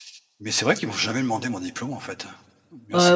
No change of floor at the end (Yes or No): No